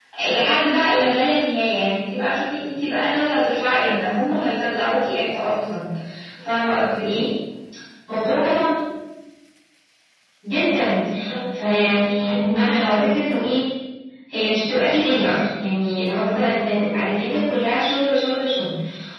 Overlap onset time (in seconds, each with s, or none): 11.6 s